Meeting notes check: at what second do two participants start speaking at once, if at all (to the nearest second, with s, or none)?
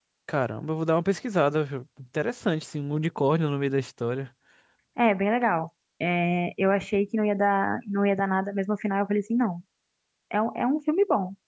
none